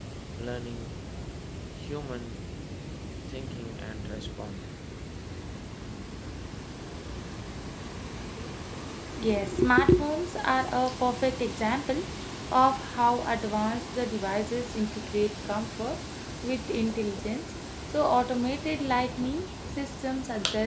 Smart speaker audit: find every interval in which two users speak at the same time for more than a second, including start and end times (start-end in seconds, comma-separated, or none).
none